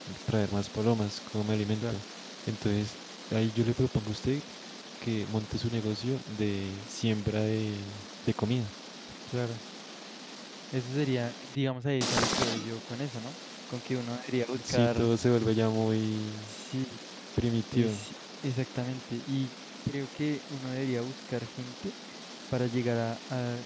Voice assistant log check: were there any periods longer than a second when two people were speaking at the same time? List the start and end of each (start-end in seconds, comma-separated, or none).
none